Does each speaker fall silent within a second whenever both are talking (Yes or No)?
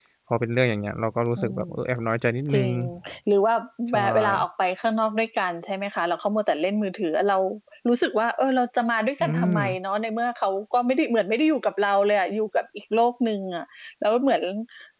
Yes